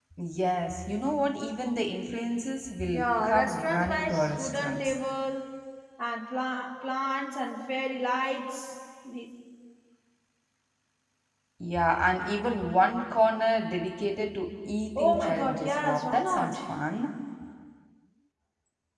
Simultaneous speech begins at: 2.9 s

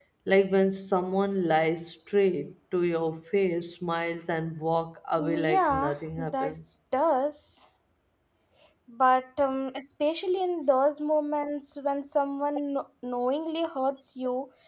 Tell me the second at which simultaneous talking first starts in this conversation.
5.2 s

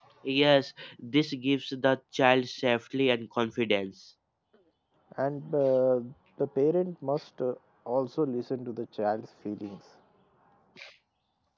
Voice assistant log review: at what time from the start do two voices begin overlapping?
none

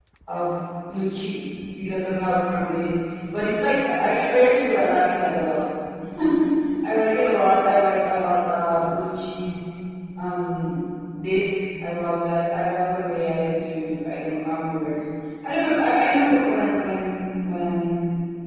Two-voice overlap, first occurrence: none

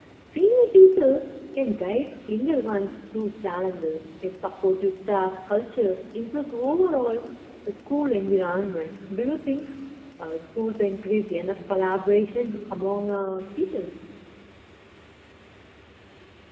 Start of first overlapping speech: none

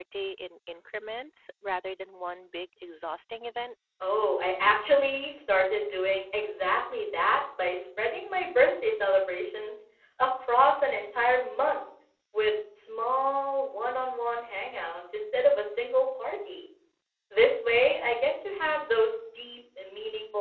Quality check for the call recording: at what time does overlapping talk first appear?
none

